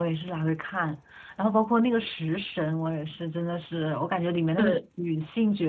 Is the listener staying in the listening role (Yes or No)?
Yes